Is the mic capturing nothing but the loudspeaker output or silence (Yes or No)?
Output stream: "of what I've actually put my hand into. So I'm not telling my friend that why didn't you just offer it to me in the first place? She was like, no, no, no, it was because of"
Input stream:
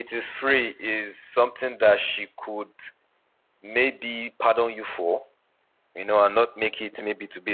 No